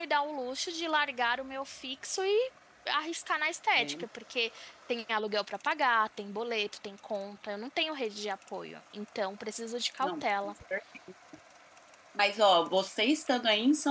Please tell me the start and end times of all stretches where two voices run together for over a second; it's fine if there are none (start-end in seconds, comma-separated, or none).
none